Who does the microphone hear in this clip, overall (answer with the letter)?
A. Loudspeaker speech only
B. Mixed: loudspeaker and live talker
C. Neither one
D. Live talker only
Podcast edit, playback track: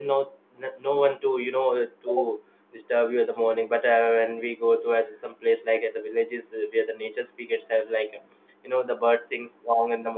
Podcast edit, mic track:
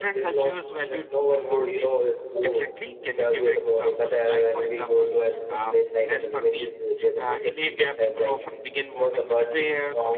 B